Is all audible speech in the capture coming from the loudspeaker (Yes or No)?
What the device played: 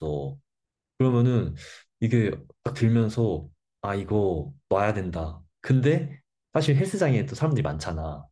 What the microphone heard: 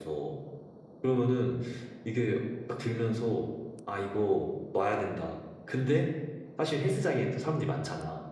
Yes